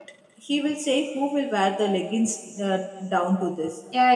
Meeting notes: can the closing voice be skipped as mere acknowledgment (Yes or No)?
No